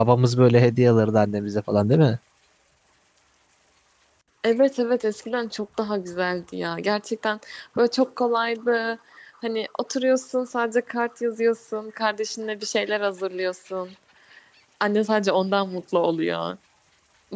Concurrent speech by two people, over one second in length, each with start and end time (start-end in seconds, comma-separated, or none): none